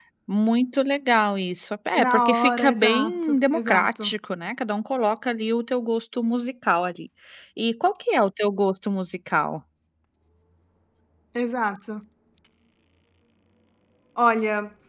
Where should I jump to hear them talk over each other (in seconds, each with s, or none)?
1.9 s